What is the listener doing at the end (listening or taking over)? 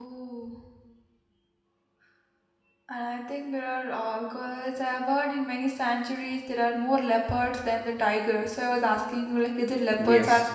taking over